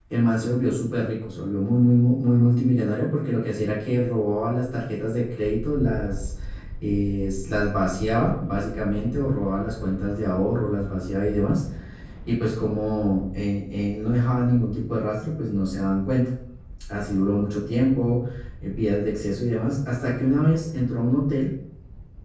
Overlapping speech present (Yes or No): No